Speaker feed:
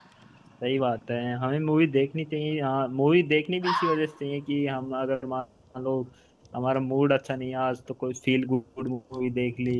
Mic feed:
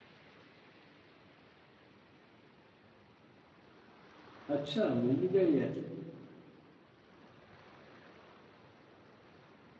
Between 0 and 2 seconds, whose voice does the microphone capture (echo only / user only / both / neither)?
neither